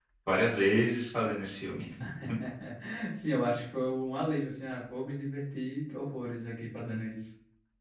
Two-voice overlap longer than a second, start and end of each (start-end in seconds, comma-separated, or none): none